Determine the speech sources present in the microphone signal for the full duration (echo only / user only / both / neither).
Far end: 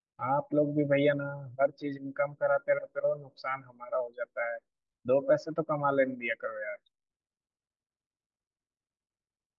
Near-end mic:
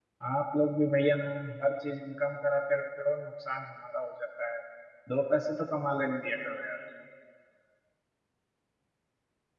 echo only